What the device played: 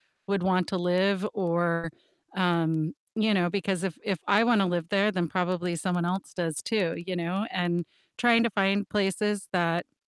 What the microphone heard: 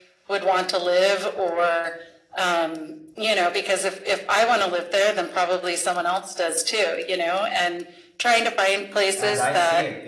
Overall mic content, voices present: both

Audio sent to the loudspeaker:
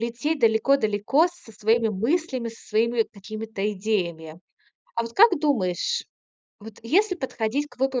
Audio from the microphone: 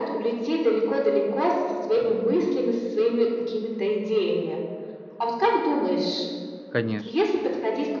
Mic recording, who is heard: both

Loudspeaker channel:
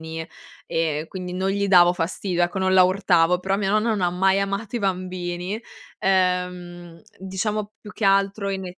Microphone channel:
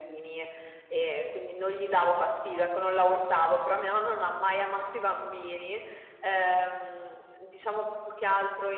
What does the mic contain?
echo only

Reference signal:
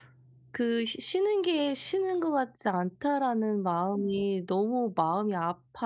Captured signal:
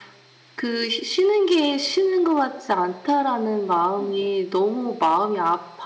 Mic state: echo only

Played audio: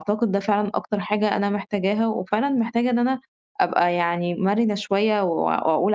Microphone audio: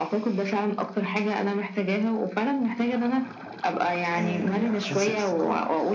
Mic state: both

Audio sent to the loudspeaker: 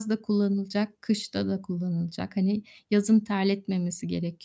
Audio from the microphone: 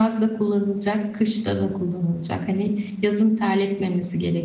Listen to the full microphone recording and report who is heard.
echo only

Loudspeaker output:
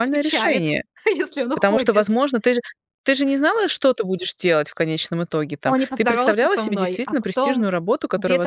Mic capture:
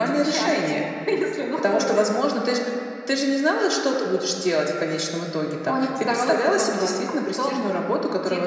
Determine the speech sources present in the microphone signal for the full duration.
echo only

